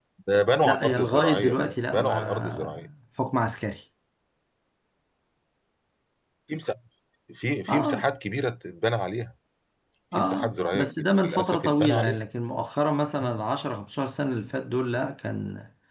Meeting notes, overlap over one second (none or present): present